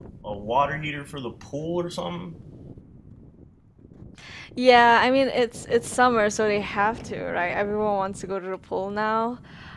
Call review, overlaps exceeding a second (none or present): none